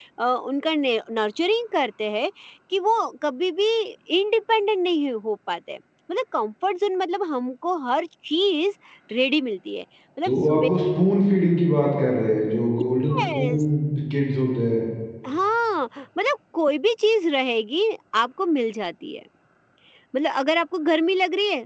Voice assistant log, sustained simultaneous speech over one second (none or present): none